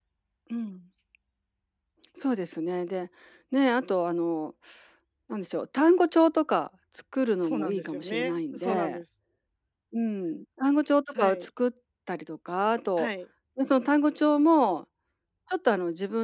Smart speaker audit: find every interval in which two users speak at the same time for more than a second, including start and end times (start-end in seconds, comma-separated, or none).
7.4-9.0